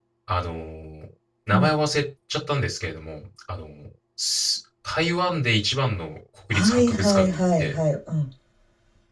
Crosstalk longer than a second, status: present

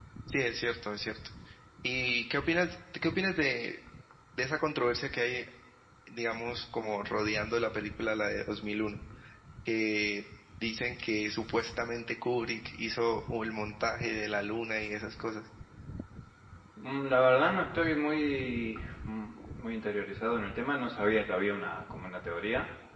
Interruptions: none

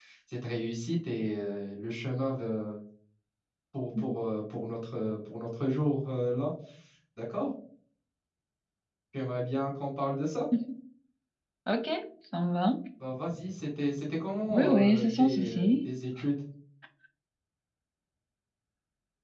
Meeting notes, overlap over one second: present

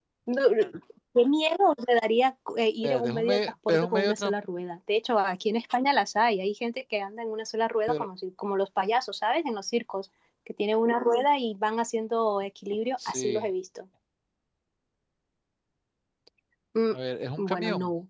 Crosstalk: present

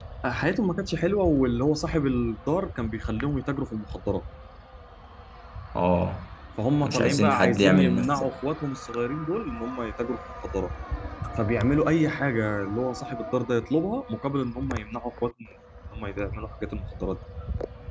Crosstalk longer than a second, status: present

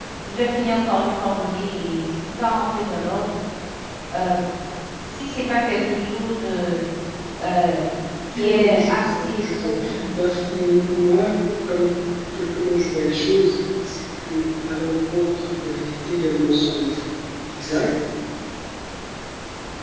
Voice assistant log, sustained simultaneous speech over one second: present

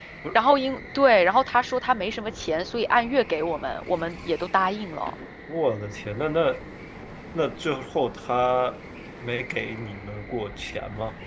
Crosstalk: none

